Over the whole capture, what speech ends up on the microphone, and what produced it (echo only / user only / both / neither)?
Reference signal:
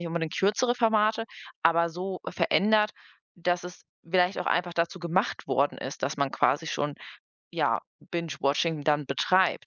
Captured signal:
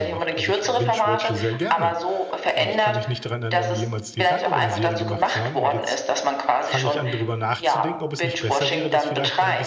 both